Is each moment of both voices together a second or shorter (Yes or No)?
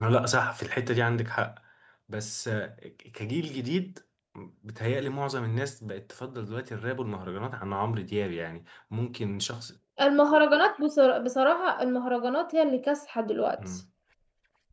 Yes